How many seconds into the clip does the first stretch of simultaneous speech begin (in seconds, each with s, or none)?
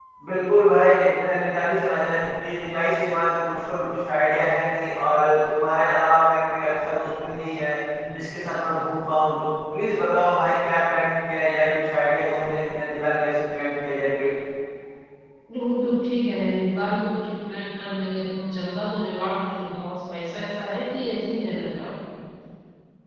none